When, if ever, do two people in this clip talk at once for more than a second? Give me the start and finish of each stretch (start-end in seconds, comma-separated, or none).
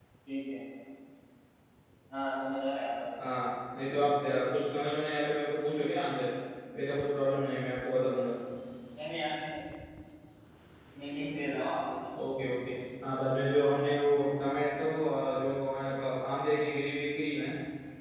none